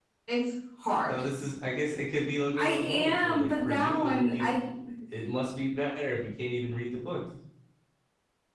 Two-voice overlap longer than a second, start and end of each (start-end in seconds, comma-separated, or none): 2.5-4.5